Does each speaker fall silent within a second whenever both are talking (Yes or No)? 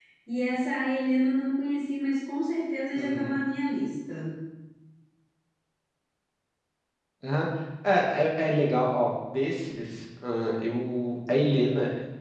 Yes